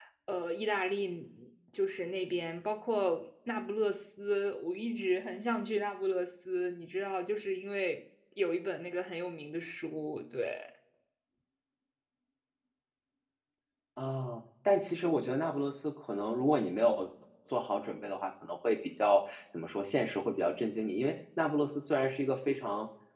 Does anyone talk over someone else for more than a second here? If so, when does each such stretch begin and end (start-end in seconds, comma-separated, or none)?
none